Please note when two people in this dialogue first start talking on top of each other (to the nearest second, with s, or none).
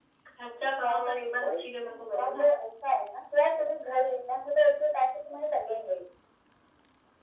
1 s